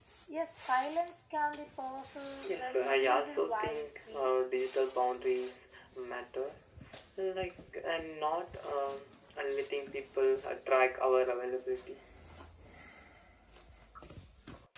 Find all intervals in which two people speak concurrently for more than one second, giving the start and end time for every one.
2.5-4.3

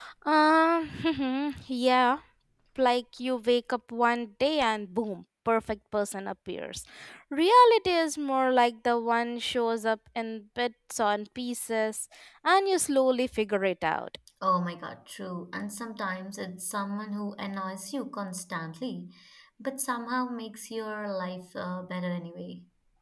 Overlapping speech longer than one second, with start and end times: none

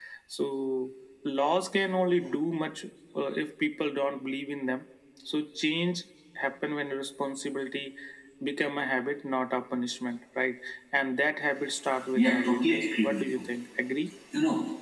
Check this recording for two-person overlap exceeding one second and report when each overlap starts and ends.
12.2-13.4

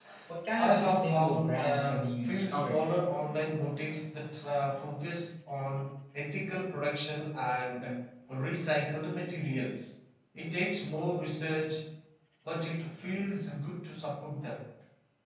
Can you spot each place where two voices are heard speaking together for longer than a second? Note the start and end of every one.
0.6-2.8

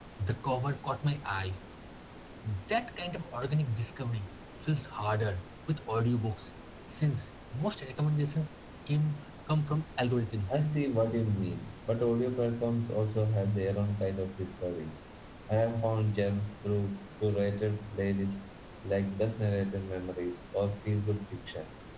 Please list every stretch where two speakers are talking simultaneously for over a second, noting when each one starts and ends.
none

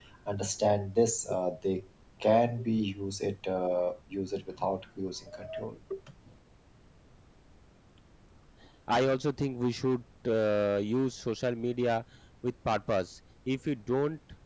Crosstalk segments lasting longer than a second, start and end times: none

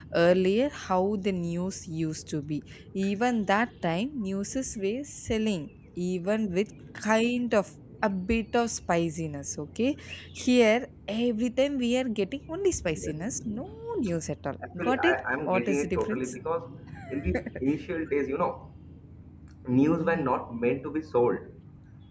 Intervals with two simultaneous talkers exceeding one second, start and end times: 14.7-16.3

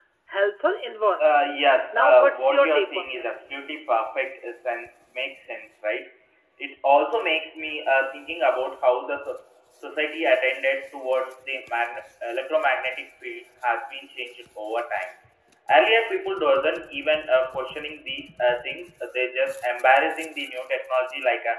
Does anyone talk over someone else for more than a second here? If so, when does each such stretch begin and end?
1.9-3.2

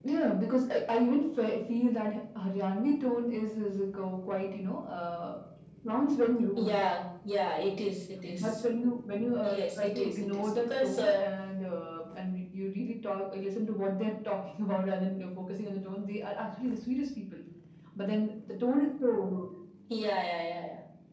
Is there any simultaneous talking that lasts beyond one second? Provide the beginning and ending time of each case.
9.4-11.2

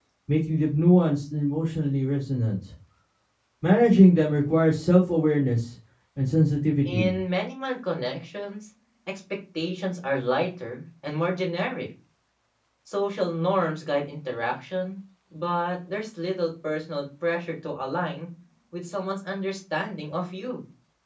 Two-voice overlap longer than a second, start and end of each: none

